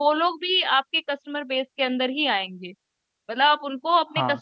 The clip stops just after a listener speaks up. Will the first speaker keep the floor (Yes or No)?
Yes